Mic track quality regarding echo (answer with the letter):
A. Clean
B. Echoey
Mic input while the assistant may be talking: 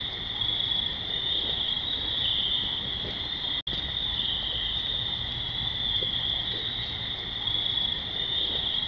A